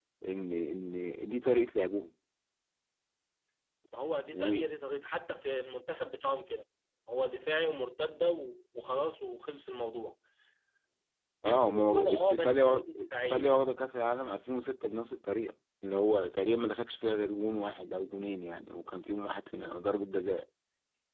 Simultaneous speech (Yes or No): Yes